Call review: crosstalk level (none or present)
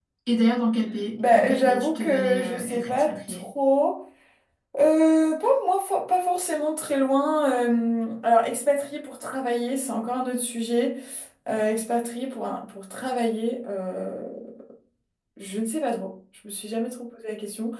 present